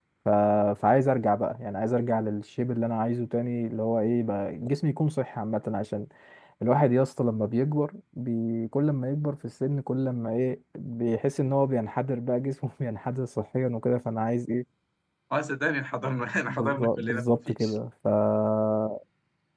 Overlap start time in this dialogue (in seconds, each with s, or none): 16.5 s